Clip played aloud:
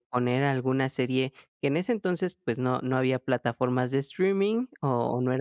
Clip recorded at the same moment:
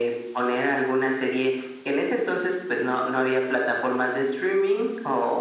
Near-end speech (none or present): none